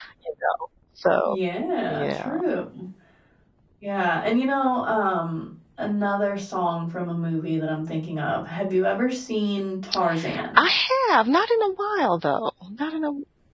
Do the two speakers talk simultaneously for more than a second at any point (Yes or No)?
No